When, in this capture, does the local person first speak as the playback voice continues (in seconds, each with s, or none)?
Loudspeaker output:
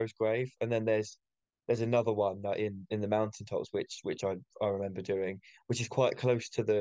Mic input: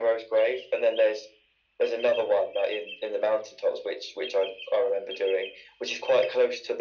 none